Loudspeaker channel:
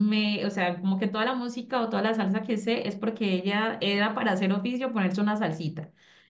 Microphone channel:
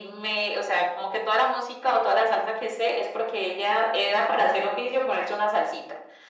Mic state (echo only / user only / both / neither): echo only